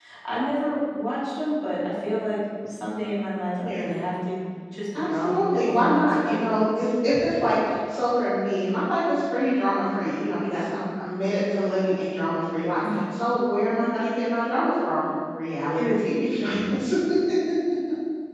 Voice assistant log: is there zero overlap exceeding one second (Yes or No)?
No